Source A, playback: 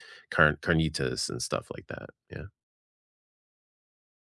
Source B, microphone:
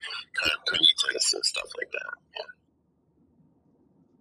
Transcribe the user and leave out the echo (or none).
none